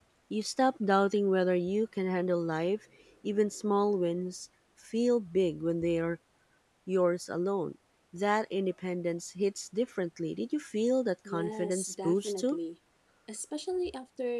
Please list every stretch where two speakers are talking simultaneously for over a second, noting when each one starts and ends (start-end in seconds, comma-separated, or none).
11.3-12.6